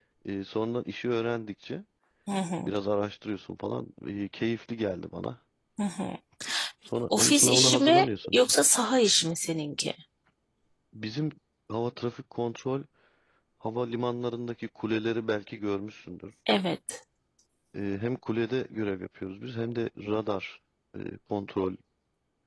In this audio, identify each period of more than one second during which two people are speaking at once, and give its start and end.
7.1-8.5

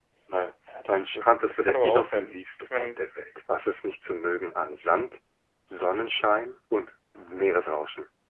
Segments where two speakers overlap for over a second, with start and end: 0.9-2.9

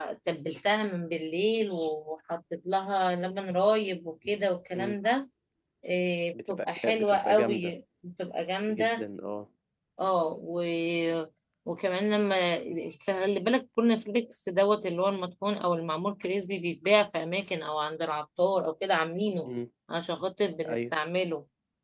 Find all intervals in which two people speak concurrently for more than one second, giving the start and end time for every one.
6.5-7.7

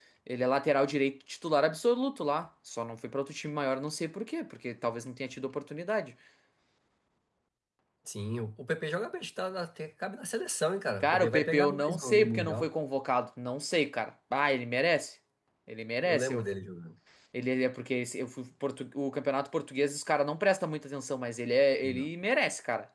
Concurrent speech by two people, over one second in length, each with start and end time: 11.0-12.7

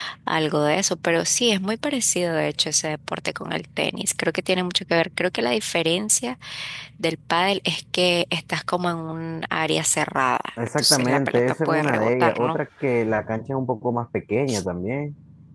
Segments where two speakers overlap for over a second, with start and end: 10.8-12.6

